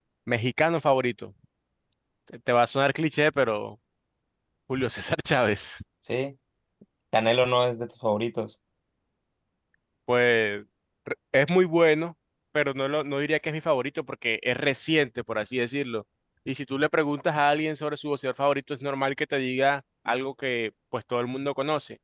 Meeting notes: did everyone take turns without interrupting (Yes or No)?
Yes